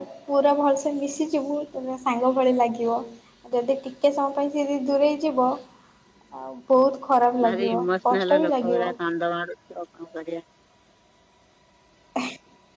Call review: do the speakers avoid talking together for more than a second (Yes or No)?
No